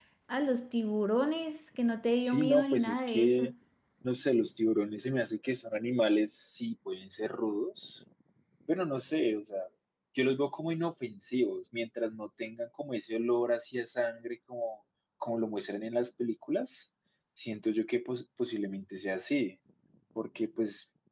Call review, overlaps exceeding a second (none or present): present